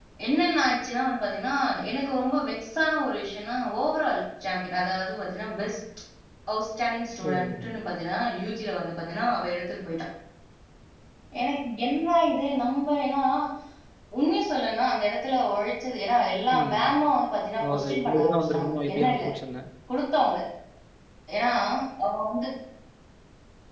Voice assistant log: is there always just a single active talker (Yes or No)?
No